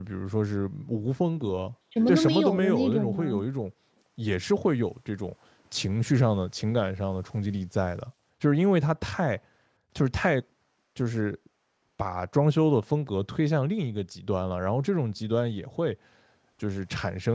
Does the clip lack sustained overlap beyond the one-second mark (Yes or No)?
No